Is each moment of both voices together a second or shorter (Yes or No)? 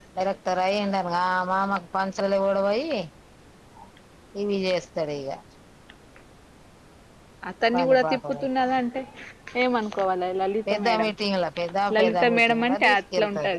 No